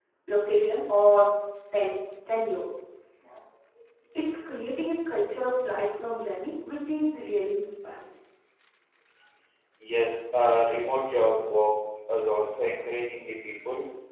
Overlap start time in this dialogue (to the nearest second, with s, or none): none